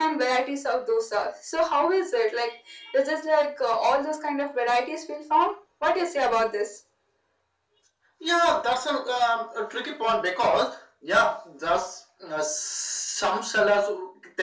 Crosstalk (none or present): none